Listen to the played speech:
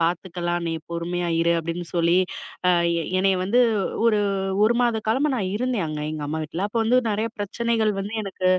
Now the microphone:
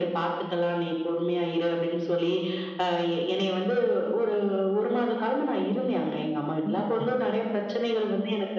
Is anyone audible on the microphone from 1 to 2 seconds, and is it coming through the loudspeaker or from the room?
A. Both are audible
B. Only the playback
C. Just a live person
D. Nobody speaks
B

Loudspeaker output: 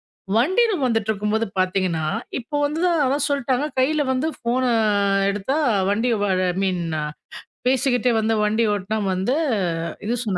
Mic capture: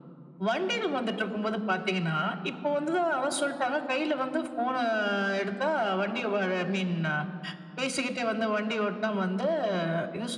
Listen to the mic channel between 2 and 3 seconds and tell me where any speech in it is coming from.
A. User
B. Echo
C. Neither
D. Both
B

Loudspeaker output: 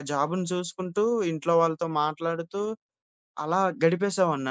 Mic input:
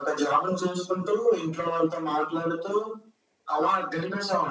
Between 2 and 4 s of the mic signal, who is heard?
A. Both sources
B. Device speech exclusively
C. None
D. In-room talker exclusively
B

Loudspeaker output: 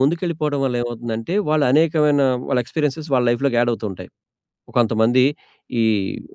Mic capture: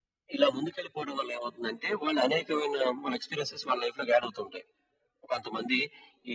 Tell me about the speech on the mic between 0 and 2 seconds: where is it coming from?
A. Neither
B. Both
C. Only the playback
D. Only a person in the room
C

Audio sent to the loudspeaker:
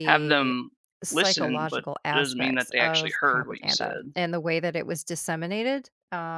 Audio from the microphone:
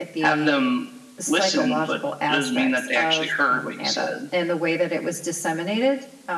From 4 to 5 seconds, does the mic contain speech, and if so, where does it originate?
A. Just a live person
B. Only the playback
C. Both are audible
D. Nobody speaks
B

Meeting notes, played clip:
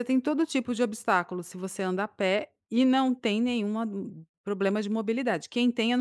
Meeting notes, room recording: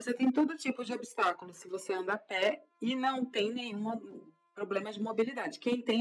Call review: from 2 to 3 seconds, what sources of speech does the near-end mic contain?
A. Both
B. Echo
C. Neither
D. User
B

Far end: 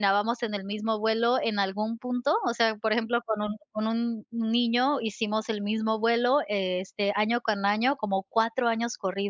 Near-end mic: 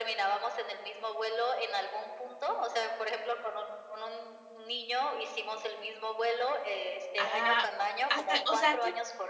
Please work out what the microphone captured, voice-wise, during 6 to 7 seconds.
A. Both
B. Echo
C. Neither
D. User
B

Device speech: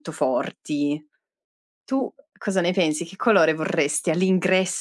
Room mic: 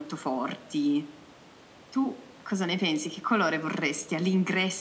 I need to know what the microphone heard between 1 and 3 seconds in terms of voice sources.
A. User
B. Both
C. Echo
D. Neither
C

